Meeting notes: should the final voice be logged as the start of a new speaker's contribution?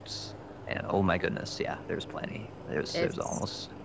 Yes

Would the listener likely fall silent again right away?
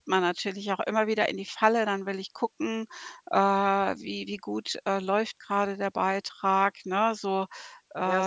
No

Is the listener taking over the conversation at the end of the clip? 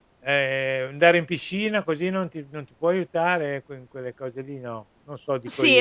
Yes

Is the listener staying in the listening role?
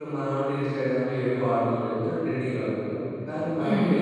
Yes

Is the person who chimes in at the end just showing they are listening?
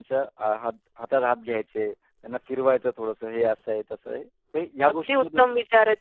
No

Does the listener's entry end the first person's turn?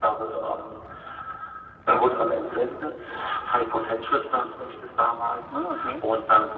No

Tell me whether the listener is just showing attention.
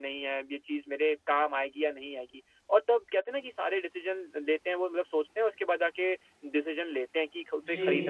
Yes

